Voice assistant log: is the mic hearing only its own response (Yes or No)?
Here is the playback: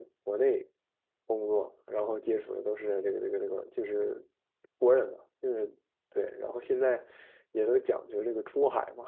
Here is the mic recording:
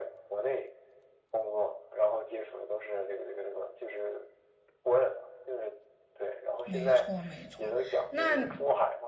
No